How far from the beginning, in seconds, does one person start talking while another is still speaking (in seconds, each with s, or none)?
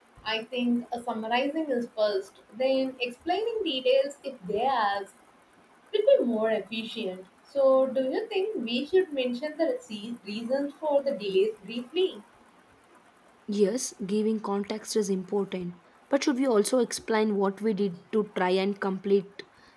none